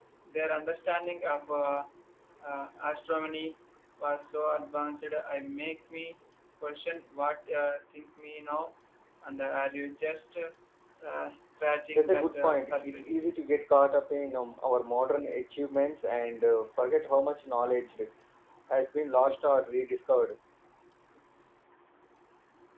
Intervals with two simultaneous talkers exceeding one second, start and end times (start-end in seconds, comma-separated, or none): 11.9-13.3